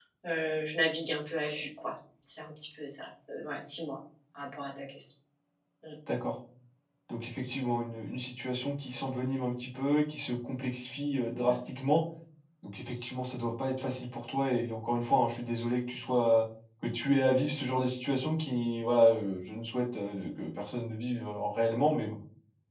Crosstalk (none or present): none